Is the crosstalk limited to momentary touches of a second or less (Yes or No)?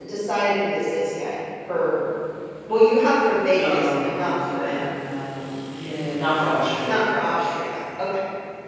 No